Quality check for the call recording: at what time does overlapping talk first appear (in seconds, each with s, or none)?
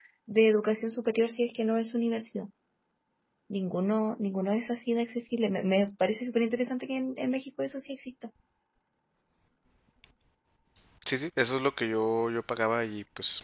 none